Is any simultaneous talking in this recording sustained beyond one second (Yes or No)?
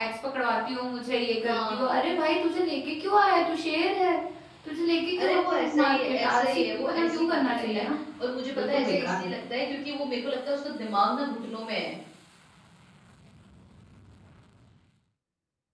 Yes